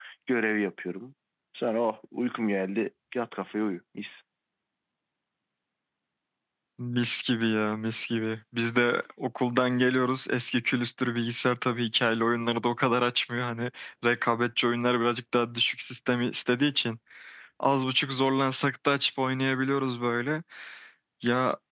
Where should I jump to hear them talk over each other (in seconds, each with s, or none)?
none